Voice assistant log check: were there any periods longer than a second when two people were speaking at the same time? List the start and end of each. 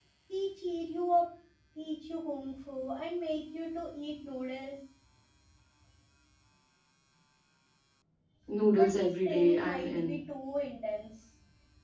8.8-10.2

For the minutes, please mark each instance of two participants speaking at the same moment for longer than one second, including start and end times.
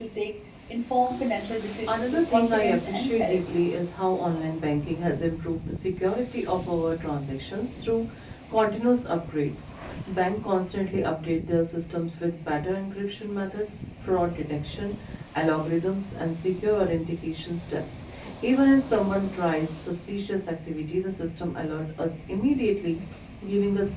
1.9-3.6

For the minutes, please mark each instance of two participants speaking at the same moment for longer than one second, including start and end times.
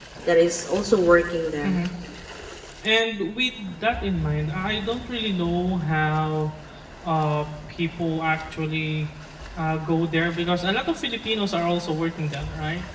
none

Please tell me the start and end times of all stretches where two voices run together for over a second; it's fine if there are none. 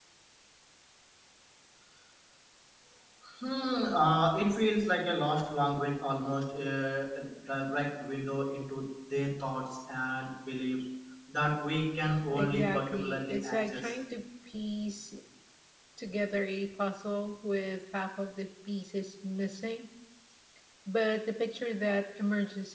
12.3-13.9

